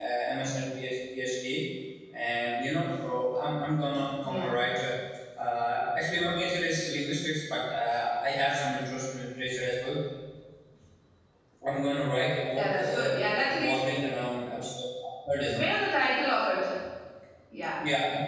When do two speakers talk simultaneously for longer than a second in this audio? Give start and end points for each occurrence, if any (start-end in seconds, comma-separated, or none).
12.6-13.8